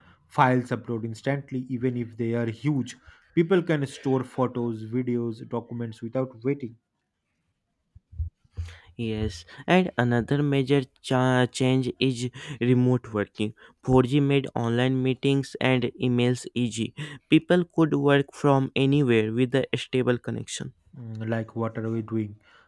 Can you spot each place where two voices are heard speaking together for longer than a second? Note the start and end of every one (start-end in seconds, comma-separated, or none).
none